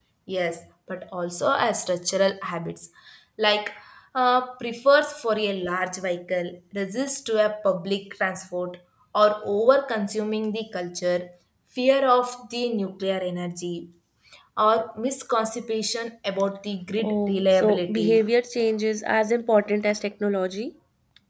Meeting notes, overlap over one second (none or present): present